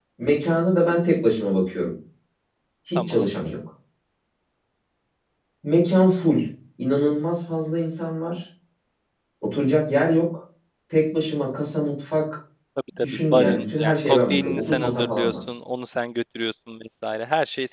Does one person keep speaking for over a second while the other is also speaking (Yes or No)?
Yes